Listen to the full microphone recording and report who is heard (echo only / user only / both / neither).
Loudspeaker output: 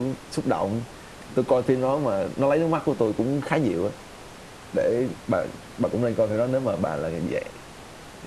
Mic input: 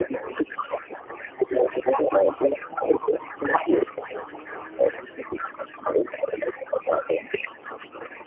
echo only